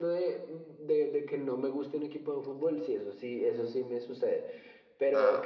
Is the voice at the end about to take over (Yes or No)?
No